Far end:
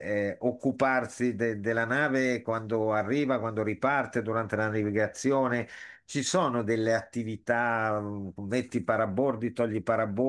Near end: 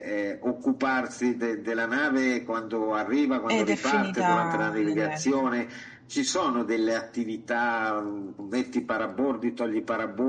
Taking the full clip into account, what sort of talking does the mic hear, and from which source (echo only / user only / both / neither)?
both